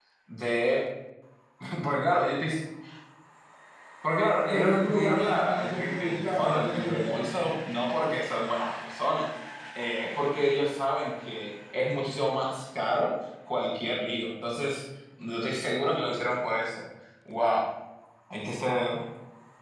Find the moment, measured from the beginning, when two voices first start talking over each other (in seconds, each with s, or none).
4.4 s